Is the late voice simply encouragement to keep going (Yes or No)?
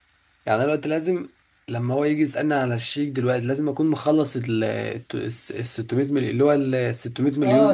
No